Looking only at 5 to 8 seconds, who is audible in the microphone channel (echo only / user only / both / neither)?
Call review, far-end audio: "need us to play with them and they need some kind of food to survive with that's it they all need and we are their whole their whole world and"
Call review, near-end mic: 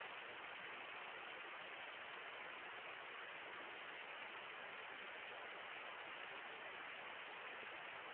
neither